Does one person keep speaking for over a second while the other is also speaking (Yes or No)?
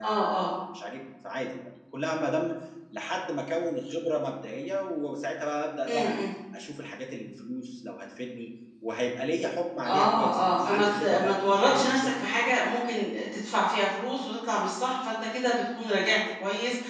Yes